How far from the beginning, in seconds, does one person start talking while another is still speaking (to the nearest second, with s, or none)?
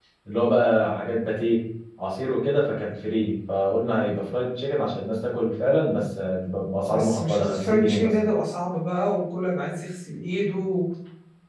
7 s